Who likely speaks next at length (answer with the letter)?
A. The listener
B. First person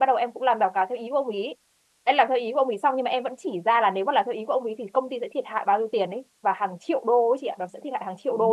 A